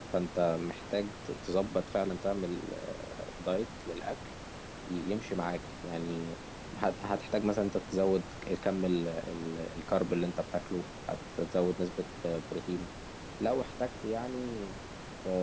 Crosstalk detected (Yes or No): No